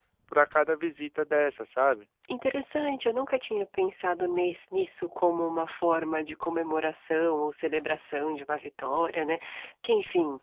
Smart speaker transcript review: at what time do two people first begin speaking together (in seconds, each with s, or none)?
none